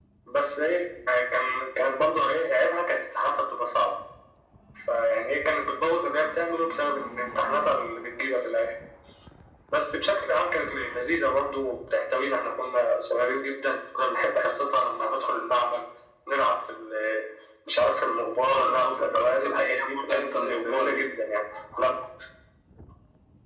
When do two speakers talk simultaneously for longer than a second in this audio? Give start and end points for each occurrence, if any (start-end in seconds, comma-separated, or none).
18.5-21.1